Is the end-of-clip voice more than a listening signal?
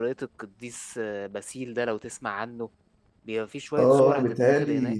Yes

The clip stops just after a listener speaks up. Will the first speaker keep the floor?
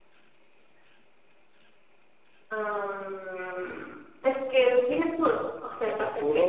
No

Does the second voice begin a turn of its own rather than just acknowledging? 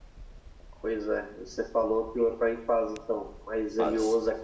No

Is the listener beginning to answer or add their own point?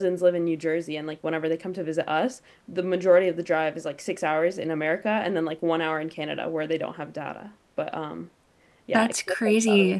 Yes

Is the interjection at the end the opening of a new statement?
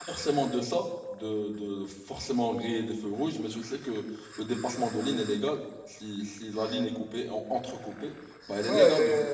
Yes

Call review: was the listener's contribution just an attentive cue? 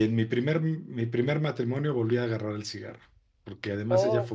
Yes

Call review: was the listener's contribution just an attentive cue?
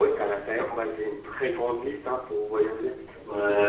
No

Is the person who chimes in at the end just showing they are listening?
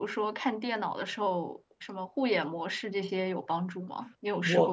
No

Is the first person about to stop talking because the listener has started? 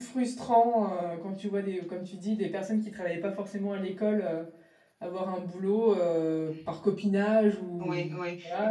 Yes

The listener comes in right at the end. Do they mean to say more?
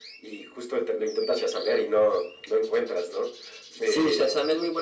Yes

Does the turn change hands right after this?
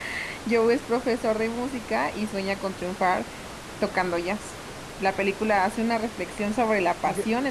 No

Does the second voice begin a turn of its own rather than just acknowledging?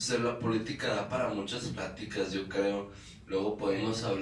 No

